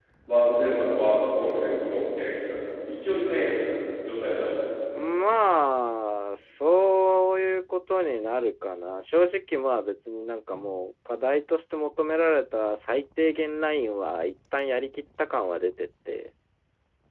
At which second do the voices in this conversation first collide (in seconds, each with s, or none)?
none